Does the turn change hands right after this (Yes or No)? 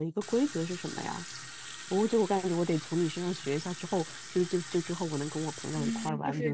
Yes